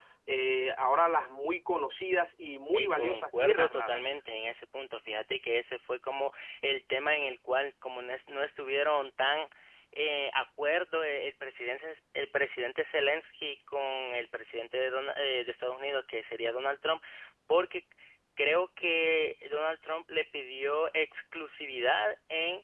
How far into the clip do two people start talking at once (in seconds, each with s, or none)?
2.7 s